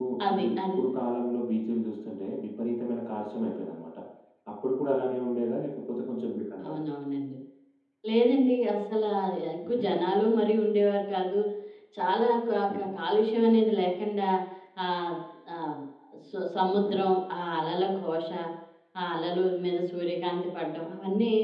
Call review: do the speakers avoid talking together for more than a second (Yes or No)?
Yes